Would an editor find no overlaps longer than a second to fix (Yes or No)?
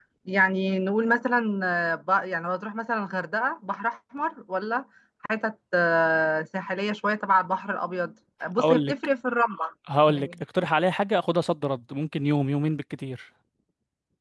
Yes